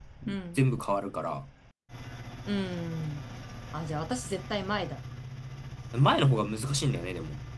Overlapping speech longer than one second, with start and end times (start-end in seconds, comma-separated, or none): none